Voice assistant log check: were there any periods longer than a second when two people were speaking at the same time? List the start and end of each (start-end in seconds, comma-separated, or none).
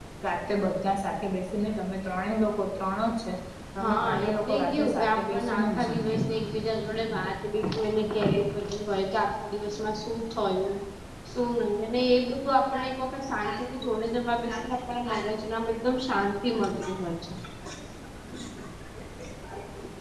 3.8-6.2